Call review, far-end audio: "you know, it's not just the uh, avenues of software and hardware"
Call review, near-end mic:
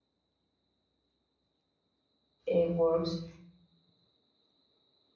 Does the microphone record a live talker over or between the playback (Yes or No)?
Yes